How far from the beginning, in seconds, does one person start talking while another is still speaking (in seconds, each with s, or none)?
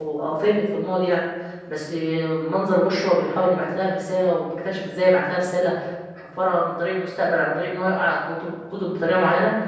none